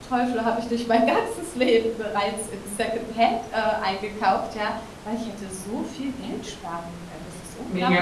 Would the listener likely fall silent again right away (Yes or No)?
No